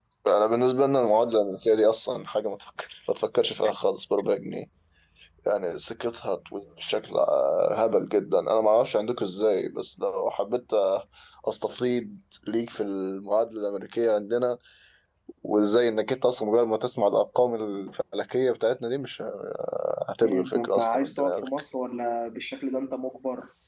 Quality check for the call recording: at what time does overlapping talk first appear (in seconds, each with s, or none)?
20.2 s